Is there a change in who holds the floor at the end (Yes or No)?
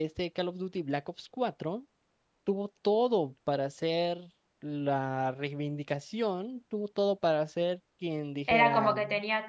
Yes